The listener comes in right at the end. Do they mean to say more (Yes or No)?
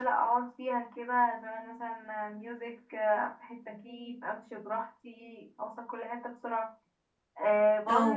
No